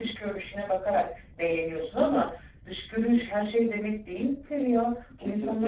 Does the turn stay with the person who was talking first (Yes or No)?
No